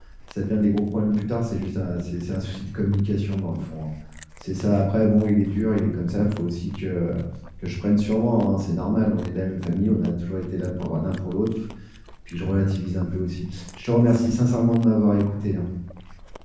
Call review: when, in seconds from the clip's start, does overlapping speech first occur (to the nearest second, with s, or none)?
none